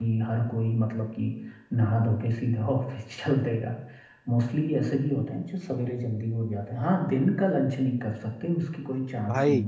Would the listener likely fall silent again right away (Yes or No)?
No